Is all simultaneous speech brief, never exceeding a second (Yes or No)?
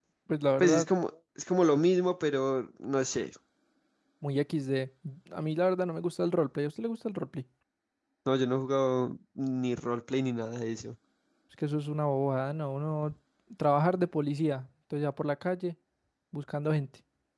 Yes